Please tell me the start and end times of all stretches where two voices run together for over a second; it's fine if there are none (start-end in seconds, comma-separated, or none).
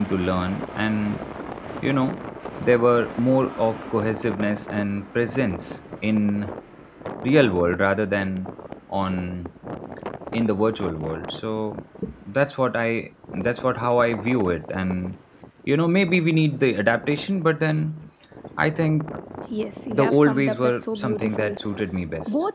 19.9-21.6